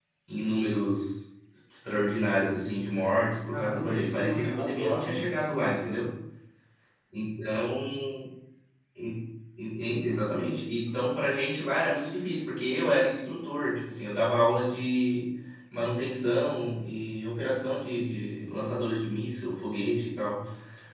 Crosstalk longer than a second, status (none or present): present